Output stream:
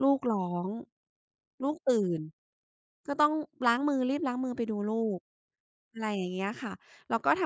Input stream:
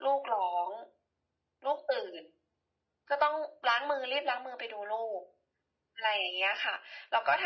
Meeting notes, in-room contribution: none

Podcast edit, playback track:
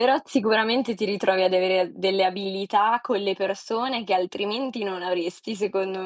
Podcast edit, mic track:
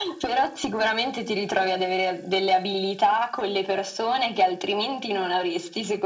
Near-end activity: none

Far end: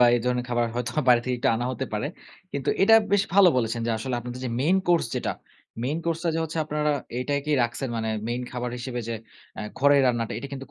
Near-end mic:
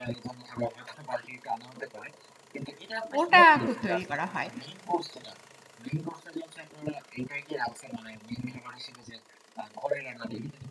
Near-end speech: present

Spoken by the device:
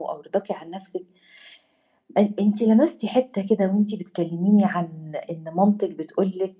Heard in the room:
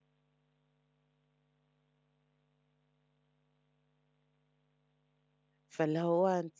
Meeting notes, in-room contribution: present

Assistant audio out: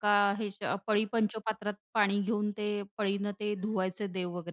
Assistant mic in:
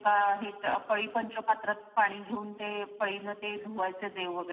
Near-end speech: none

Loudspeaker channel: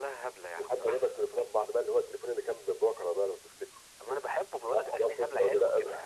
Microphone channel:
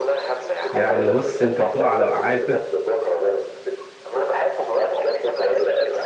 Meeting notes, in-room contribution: present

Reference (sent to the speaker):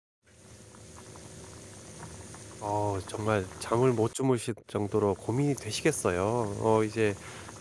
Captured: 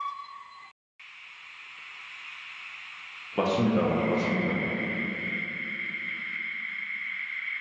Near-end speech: present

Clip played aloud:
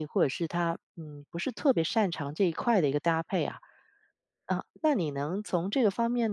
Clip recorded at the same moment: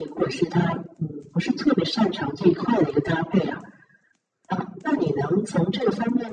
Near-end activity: none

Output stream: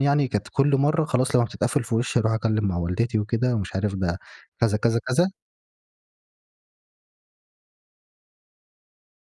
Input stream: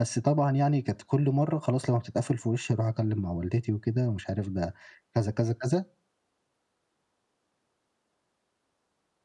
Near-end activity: none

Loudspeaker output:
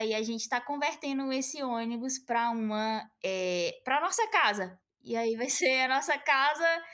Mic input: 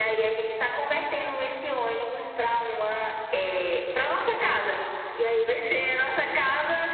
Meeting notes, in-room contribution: none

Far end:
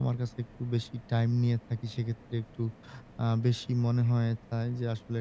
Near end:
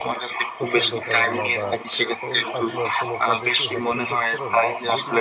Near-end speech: present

